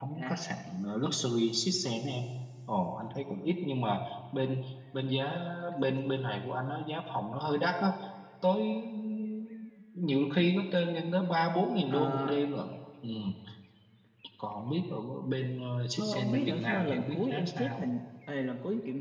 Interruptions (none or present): present